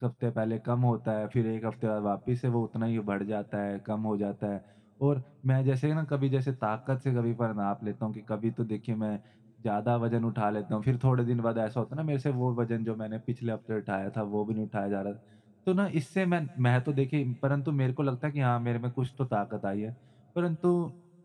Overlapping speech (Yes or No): No